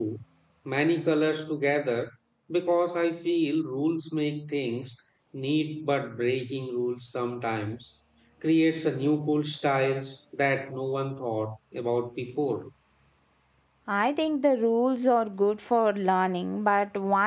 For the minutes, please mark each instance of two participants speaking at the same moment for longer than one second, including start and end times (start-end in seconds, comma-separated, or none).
none